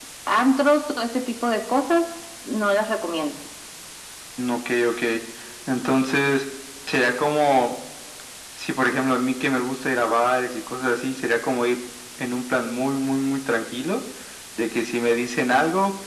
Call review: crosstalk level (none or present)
none